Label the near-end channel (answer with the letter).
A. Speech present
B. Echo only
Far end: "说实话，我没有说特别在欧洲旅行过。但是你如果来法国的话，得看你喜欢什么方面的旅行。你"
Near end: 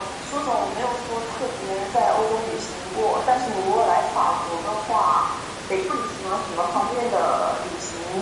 B